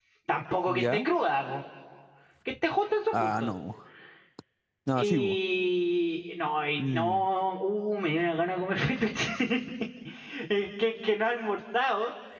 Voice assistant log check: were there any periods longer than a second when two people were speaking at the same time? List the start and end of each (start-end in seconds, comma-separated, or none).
none